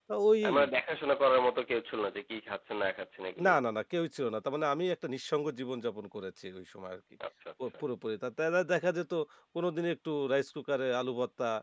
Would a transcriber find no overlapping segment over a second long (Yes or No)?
Yes